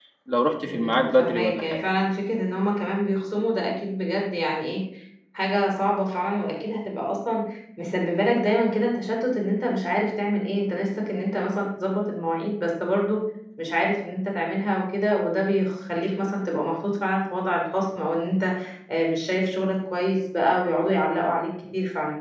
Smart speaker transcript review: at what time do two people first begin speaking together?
0.6 s

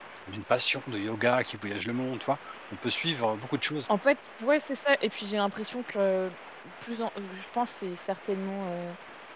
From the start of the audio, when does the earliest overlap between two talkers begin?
none

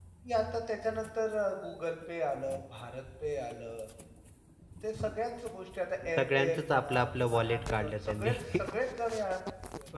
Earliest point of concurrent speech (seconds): 6.2 s

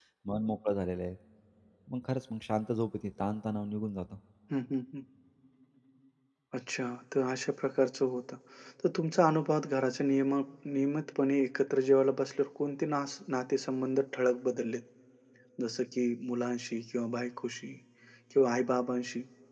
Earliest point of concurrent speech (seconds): none

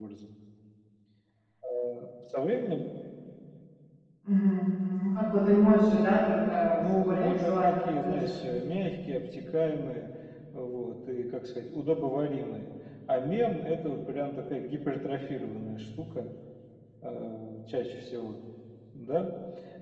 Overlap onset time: 6.8 s

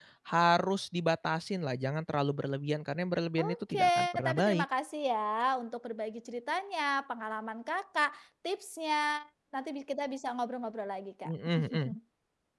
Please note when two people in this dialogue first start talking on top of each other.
3.4 s

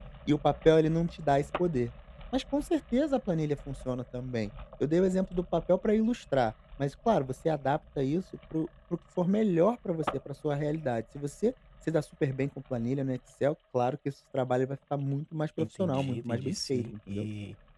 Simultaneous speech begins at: 15.6 s

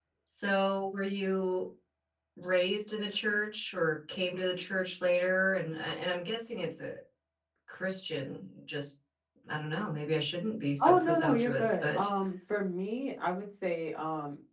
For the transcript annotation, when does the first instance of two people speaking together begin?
10.8 s

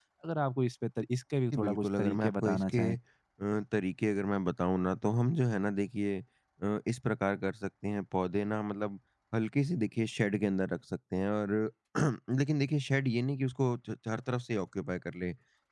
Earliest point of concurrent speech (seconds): 1.5 s

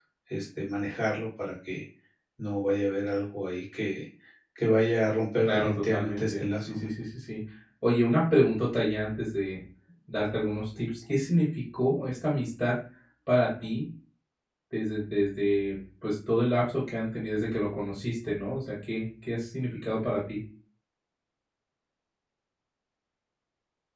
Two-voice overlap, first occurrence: 5.4 s

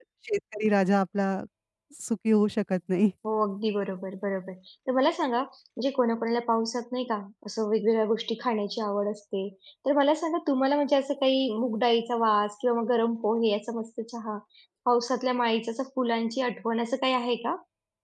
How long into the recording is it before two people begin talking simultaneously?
none

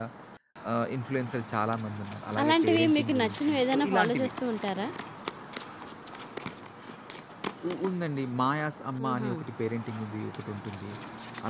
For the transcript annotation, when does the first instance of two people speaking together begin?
2.4 s

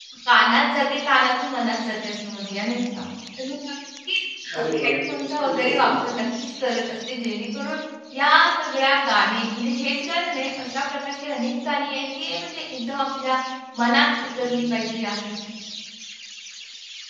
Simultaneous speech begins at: 4.8 s

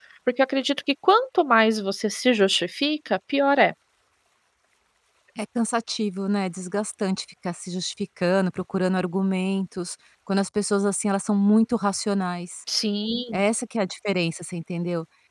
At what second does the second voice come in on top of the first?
none

